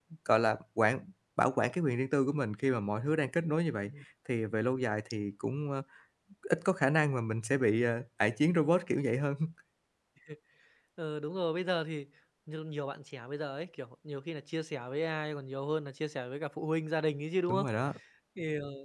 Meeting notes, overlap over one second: none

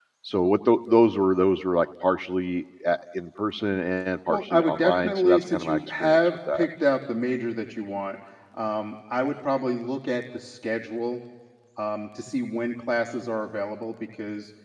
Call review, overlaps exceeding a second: present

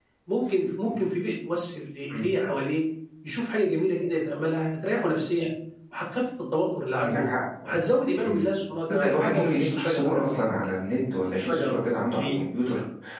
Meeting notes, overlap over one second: present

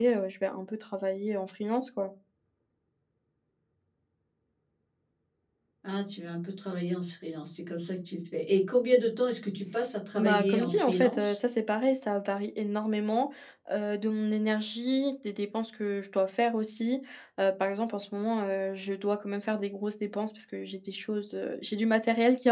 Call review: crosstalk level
present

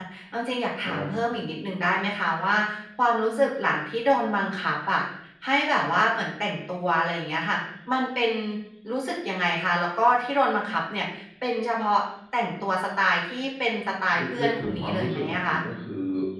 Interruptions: present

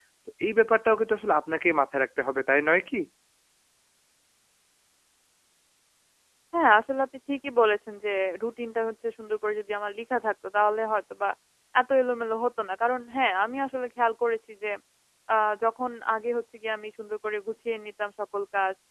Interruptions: none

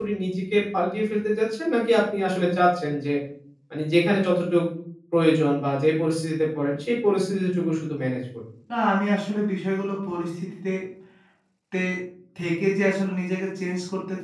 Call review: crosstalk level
none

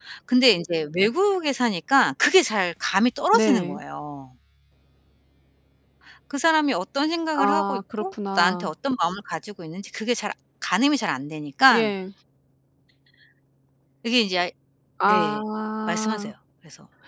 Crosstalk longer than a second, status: present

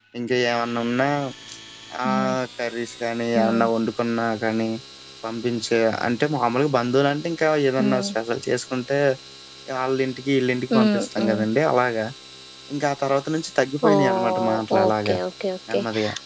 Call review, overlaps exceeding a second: present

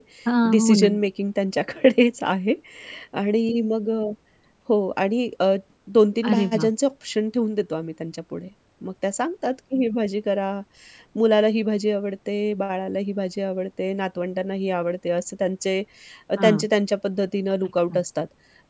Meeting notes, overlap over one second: none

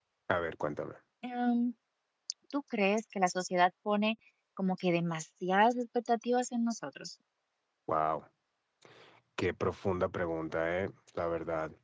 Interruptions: none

